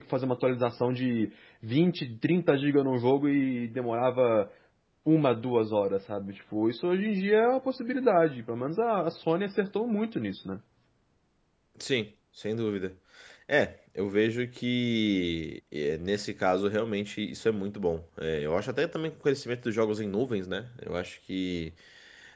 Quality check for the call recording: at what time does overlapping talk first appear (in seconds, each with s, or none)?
none